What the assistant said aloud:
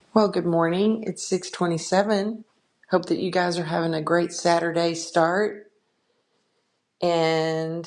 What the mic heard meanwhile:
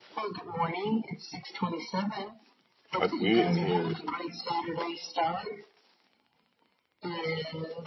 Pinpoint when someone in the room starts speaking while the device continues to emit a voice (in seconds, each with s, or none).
3.0 s